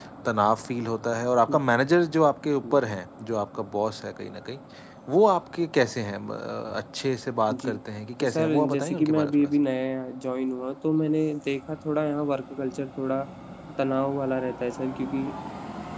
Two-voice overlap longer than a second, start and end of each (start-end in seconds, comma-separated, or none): 8.2-9.5